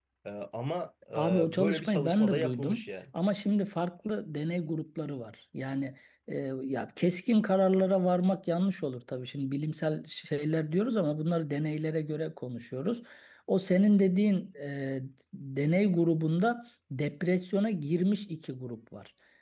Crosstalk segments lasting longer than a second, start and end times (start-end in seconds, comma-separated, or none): 1.1-2.9